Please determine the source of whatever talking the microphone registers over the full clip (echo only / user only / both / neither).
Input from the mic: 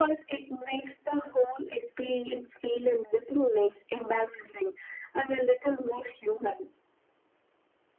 echo only